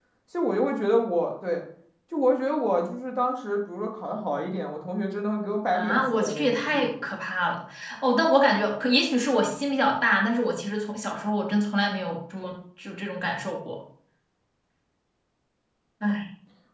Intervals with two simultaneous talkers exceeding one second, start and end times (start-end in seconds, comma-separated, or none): 5.7-7.1